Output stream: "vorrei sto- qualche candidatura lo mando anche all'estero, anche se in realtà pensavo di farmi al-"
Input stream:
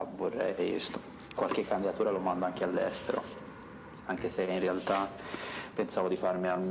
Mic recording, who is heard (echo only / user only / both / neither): echo only